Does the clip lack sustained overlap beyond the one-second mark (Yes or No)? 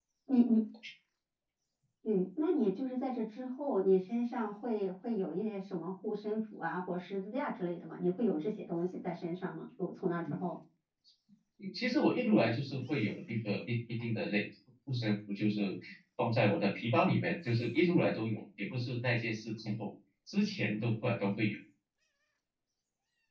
Yes